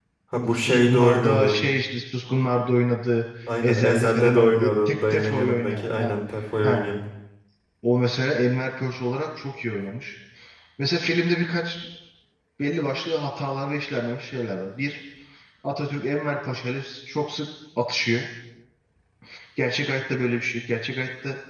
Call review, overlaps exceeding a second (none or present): present